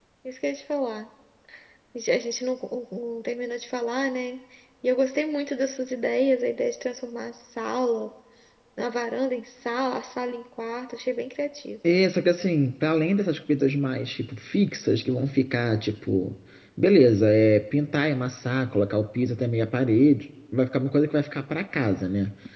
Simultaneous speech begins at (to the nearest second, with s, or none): none